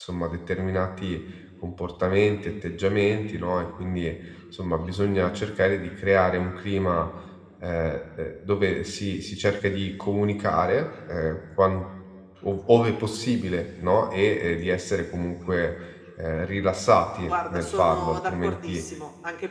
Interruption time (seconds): 17.3 s

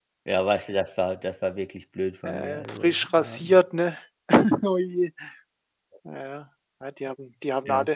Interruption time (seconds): 2.2 s

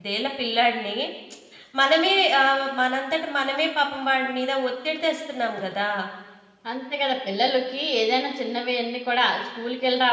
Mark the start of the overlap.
none

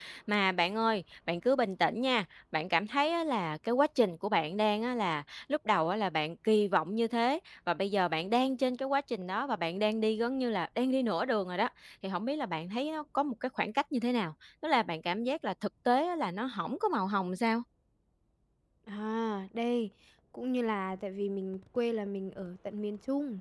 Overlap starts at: none

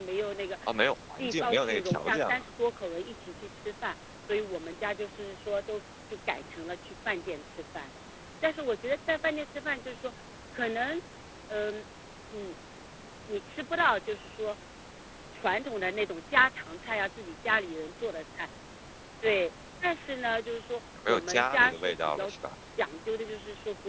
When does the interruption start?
1.2 s

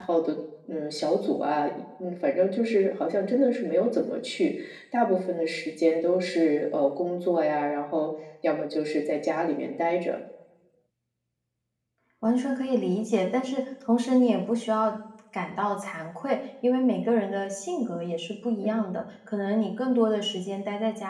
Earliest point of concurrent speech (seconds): none

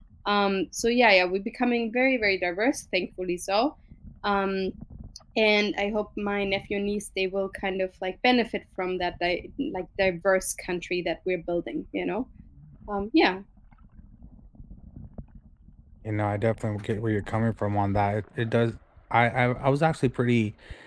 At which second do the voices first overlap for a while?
none

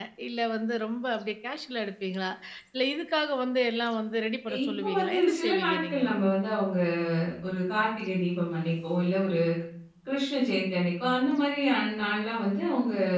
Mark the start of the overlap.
4.5 s

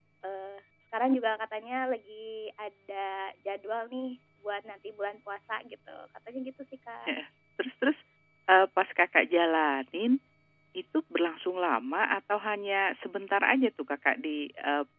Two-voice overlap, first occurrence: none

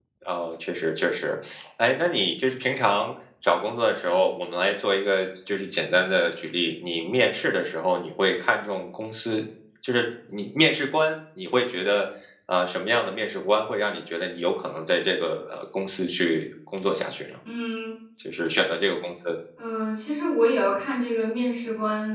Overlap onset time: none

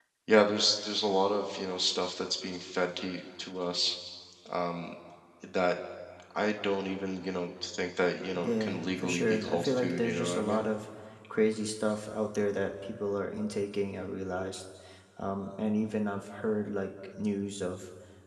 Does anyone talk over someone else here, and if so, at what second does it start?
8.3 s

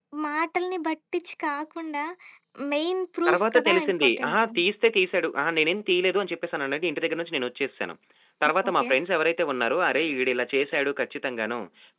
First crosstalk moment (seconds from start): 3.3 s

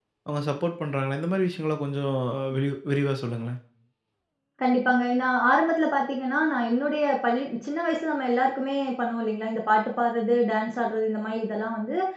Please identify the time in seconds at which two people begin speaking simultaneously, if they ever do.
none

